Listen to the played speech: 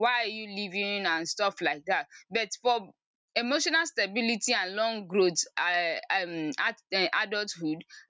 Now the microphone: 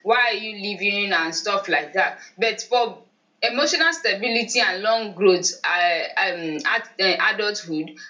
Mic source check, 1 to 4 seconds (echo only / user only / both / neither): echo only